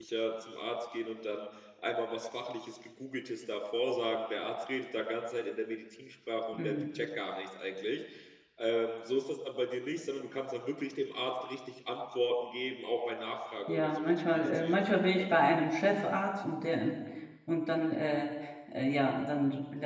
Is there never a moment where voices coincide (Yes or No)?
No